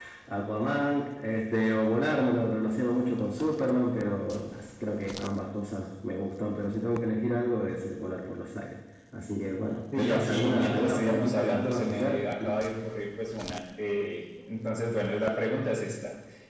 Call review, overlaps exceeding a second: present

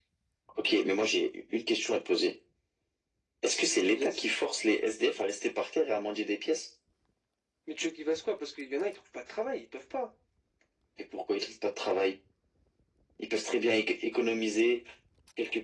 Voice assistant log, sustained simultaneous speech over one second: none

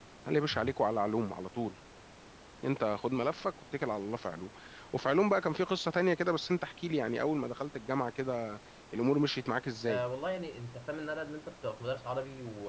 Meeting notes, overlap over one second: none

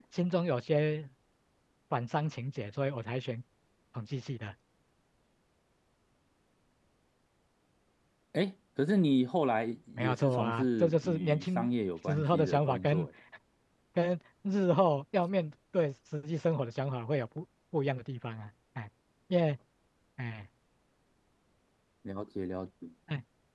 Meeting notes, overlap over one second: present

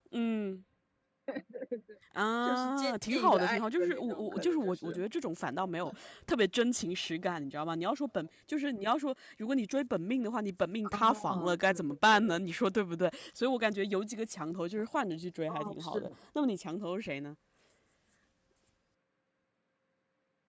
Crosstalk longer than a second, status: present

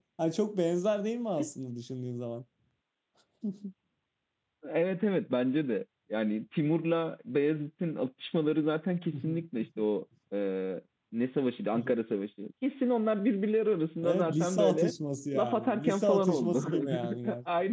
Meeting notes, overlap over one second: present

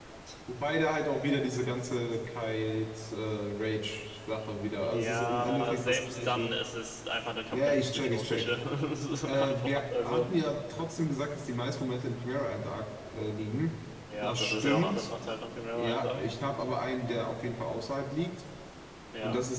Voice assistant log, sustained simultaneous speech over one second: present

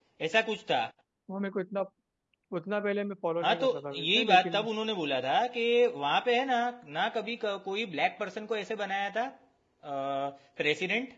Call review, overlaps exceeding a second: present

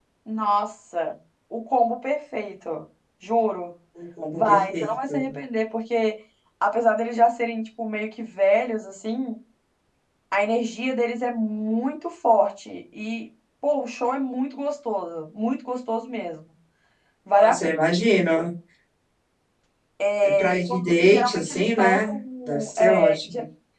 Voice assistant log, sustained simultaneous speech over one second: present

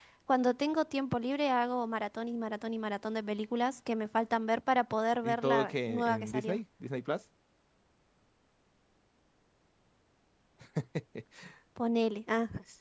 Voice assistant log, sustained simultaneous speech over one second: present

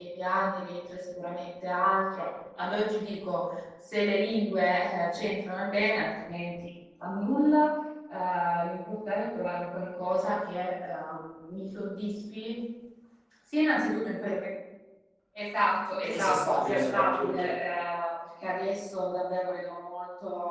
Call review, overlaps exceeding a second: present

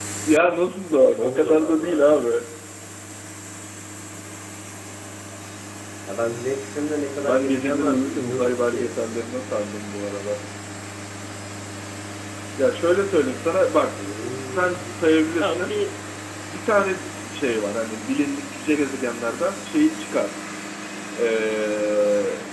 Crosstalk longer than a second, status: present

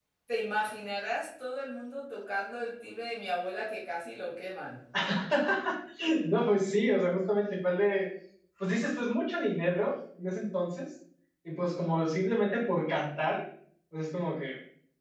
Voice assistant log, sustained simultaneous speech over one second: none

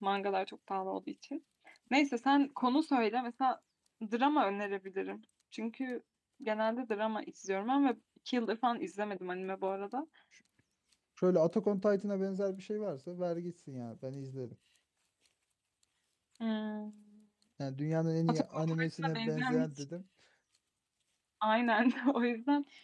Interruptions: present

